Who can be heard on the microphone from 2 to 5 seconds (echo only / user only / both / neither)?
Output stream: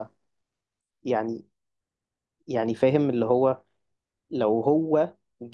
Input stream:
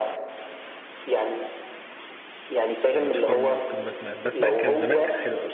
both